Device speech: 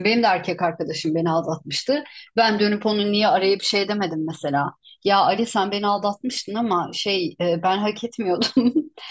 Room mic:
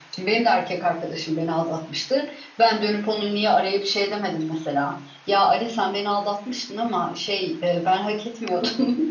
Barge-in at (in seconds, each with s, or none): none